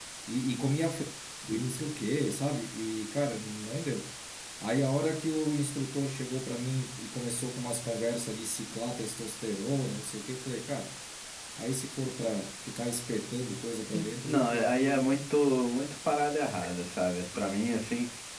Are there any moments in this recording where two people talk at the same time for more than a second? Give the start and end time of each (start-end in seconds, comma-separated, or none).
13.9-15.2